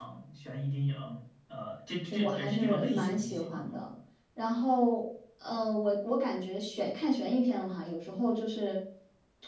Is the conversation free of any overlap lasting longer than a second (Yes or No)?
No